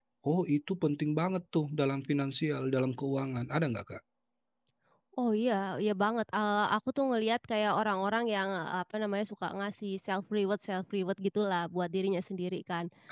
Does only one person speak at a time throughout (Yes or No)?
Yes